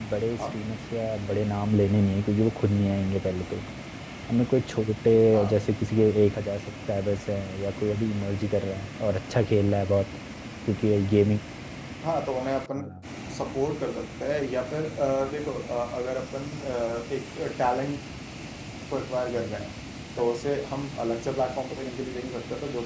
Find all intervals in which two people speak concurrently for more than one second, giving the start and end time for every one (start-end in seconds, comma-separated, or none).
none